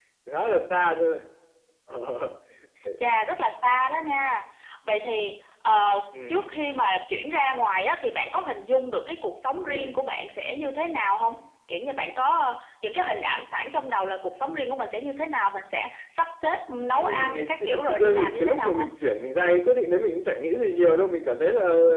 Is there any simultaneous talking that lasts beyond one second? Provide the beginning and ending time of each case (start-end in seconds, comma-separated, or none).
17.0-18.9